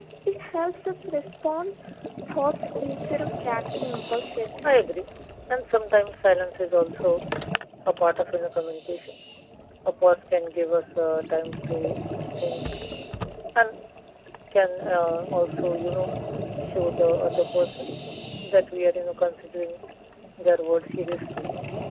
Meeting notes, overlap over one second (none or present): none